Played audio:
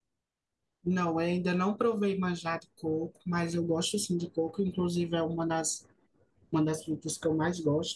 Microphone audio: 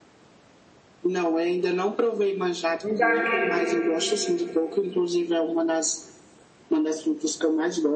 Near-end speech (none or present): present